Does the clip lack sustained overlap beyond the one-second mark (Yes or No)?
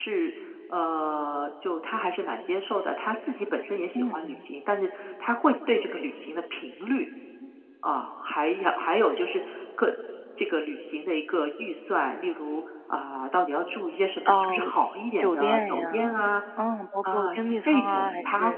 No